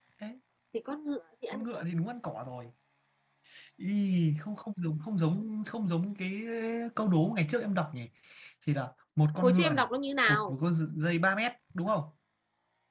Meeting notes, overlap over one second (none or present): none